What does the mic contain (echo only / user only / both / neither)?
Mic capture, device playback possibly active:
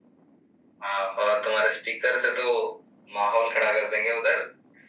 echo only